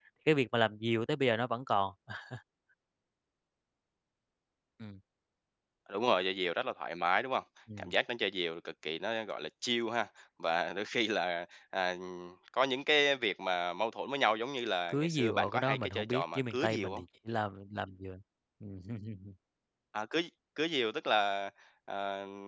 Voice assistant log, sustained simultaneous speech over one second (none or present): present